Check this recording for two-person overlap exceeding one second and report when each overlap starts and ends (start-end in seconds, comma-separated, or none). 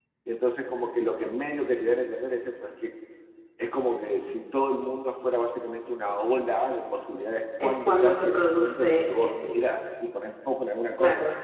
7.6-9.8